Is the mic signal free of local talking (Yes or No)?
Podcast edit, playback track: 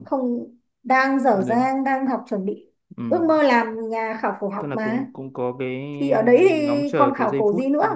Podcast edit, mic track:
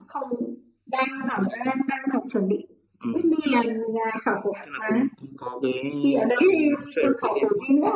Yes